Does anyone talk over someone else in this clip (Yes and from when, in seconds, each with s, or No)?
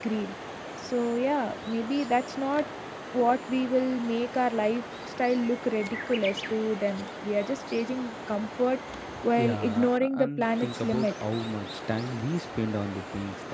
Yes, from 9.4 s